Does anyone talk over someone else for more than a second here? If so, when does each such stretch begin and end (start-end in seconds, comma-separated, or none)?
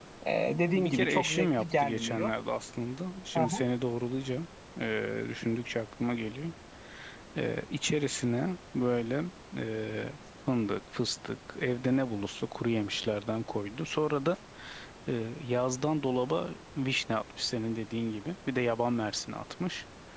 0.7-2.3